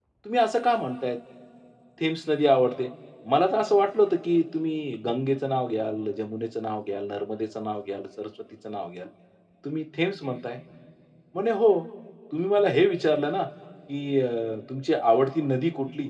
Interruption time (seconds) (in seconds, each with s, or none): none